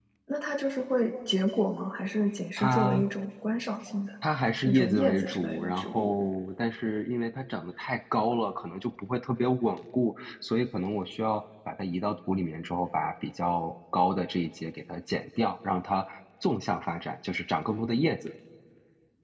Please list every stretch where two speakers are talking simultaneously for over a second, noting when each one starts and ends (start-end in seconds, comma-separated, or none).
4.6-6.1